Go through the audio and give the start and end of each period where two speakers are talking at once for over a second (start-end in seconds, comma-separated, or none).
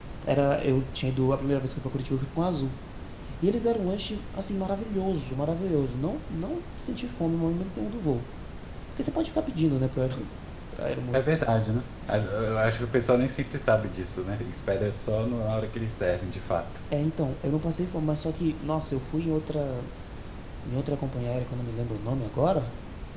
none